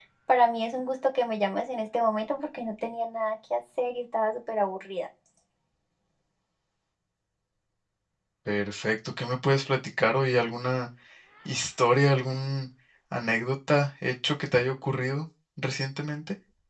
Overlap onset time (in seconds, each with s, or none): none